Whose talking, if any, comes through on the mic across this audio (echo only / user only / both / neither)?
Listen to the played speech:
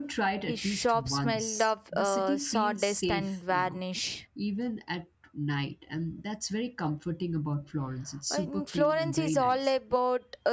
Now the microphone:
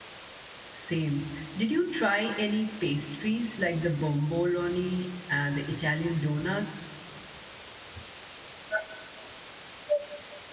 user only